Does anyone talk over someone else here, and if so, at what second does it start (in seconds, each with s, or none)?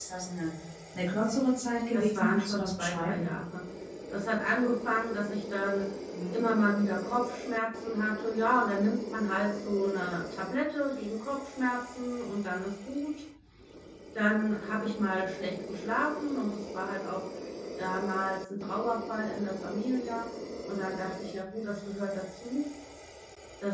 1.9 s